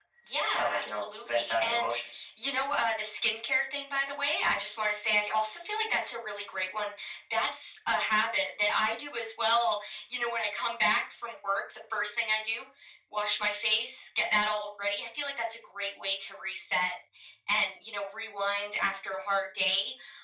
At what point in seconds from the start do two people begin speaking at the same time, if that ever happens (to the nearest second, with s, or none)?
1 s